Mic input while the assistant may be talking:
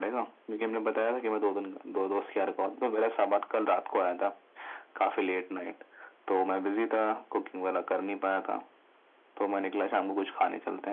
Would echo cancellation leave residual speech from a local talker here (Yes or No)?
No